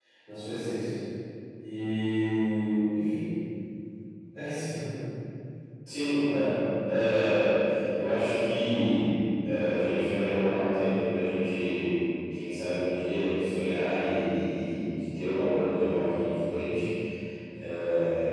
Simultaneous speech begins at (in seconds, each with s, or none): none